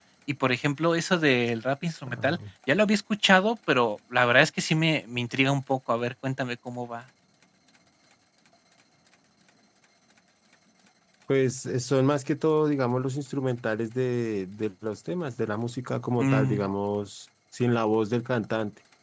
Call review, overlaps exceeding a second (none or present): none